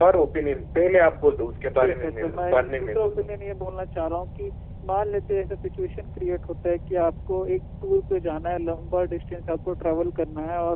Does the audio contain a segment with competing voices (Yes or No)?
Yes